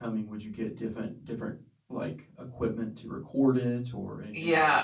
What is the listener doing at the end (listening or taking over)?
taking over